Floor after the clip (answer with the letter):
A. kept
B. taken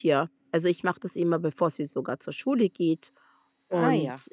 A